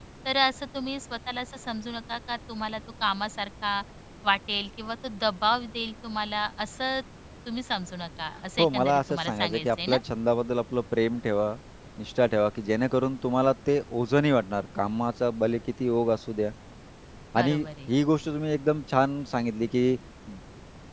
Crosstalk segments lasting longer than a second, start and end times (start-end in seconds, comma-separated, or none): 8.6-10.0